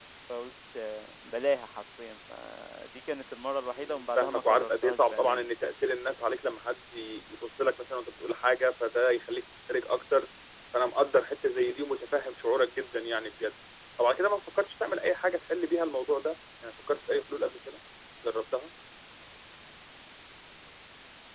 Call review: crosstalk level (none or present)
present